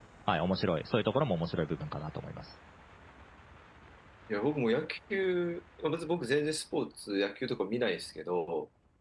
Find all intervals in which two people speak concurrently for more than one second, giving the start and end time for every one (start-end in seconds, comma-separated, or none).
none